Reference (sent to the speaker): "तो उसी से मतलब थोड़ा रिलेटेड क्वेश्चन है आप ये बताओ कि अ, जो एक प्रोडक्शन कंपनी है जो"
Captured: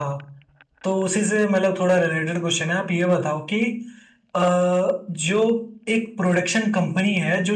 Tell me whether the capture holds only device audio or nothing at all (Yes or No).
Yes